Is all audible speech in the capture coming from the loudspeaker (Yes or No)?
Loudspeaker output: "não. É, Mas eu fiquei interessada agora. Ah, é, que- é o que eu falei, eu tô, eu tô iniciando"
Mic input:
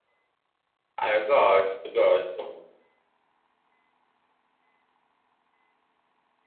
No